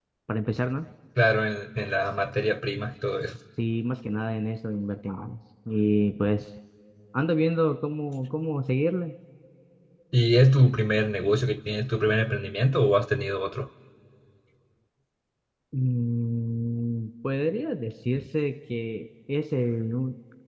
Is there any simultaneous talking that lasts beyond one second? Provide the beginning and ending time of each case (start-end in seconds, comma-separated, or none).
none